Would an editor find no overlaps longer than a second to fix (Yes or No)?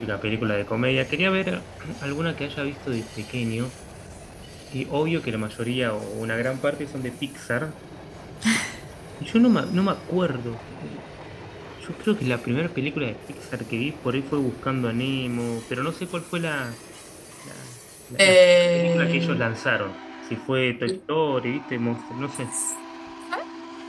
No